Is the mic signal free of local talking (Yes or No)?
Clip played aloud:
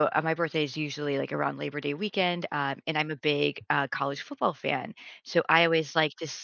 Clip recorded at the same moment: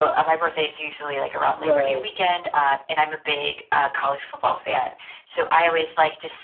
No